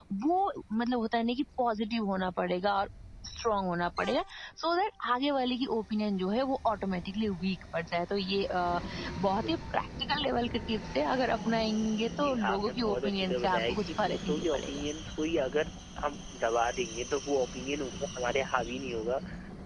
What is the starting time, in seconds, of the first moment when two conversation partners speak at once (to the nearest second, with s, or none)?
12 s